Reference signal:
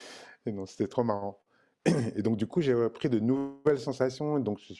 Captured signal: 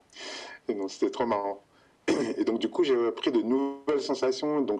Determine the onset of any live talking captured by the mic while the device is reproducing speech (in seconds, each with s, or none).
none